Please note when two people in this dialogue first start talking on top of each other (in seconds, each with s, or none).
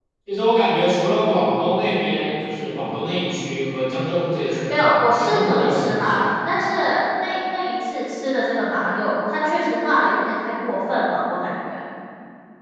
4.7 s